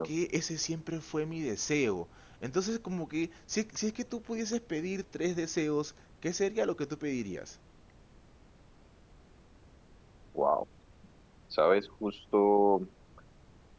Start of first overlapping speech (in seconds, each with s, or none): none